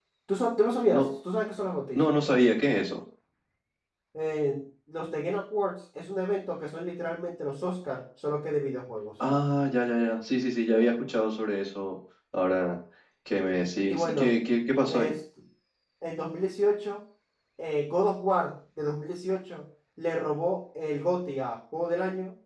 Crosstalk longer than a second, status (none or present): none